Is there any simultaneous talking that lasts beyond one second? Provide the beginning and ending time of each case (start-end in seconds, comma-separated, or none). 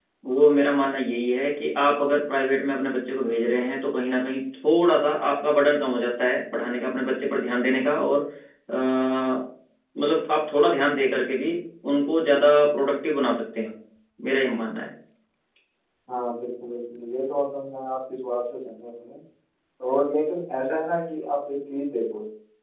none